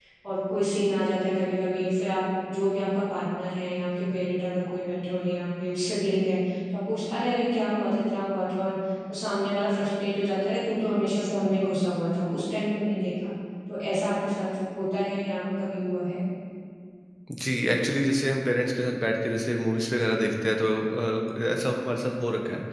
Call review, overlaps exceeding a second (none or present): none